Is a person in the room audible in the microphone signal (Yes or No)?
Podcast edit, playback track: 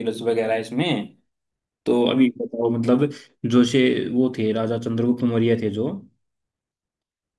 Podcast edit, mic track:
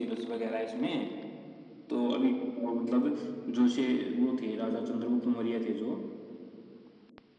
No